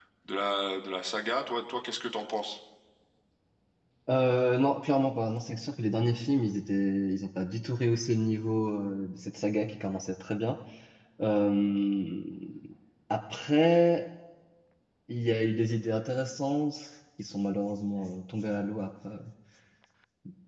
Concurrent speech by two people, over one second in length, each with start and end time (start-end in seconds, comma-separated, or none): none